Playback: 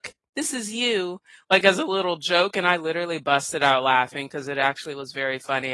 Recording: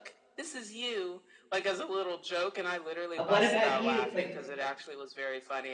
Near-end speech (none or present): present